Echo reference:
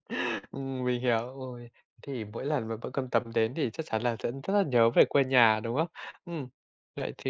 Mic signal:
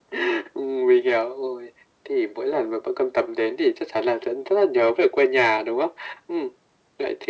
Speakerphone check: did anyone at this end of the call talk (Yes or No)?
No